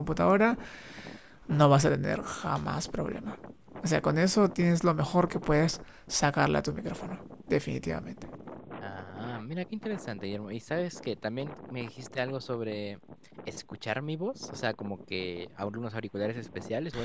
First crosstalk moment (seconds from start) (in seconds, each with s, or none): none